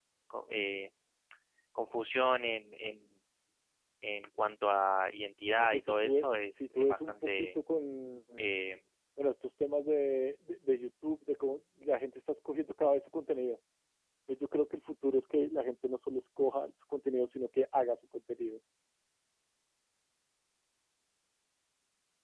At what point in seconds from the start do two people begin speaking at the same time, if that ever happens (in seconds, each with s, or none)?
5.6 s